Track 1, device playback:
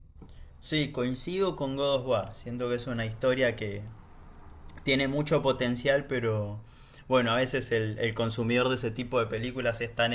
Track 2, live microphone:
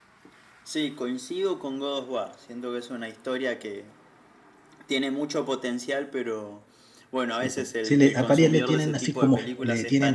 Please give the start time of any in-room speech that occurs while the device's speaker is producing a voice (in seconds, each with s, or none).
7.3 s